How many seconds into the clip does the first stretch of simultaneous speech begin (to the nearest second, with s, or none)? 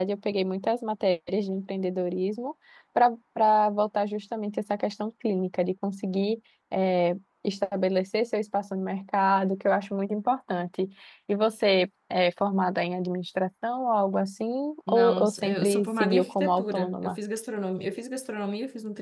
15 s